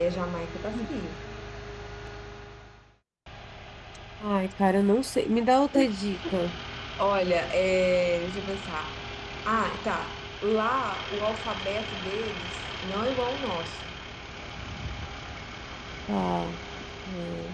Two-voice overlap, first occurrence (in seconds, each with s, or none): none